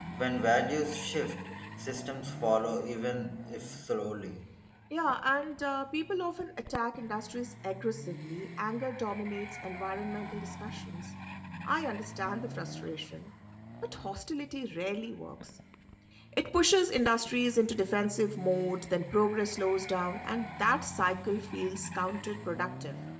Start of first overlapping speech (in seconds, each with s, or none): none